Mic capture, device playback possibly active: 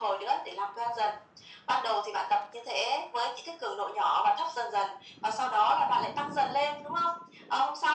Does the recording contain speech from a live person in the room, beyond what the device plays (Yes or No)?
No